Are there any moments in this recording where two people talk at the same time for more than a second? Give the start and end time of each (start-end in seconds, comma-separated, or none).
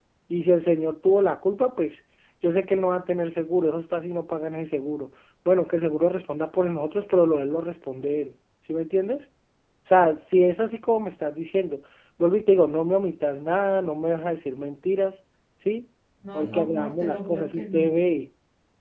16.3-17.9